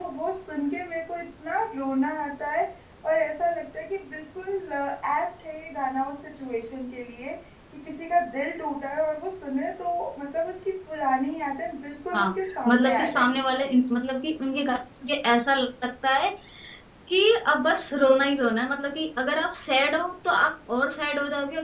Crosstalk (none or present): present